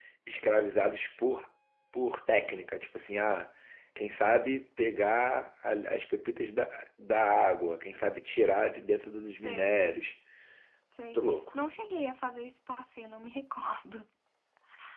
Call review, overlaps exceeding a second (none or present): none